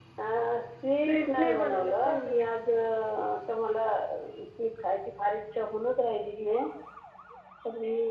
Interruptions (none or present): present